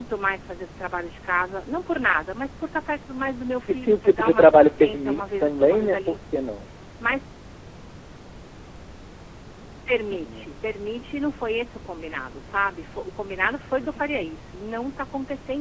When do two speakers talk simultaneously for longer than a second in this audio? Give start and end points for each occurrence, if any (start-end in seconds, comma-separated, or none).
3.7-6.2